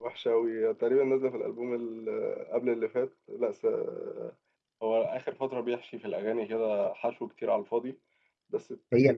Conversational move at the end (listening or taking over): taking over